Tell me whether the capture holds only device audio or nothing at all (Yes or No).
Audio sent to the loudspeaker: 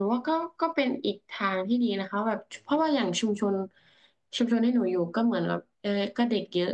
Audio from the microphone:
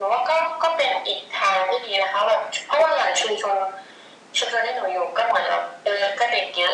Yes